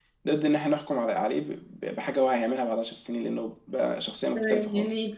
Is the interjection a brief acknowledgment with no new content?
No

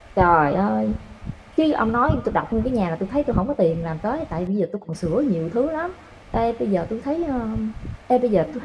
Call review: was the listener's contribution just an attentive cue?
Yes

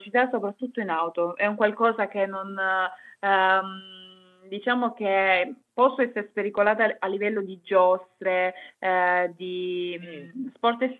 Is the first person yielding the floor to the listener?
No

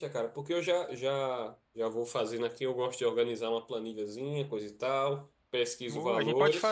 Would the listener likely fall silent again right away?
No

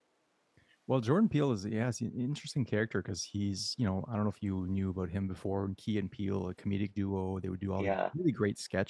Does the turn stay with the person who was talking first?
Yes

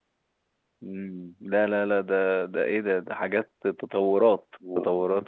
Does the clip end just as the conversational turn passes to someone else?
Yes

